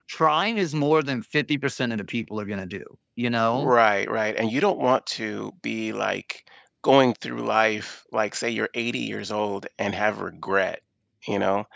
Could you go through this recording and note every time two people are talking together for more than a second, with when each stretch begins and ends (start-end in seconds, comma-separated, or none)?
none